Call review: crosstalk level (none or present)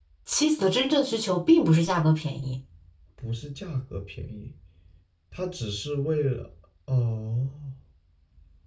none